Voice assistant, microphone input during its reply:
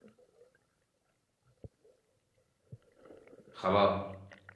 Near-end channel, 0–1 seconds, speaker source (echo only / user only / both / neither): neither